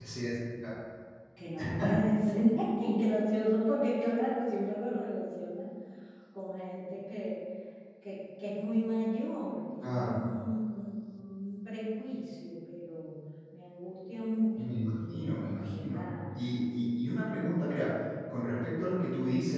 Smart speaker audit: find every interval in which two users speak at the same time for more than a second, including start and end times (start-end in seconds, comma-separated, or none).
14.7-16.0